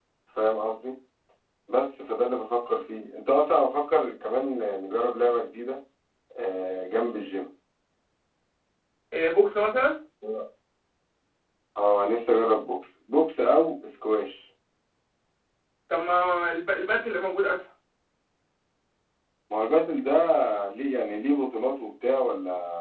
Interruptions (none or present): none